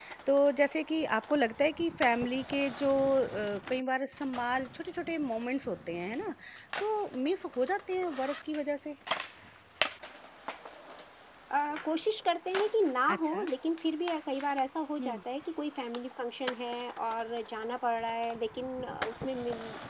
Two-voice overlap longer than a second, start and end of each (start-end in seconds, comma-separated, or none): none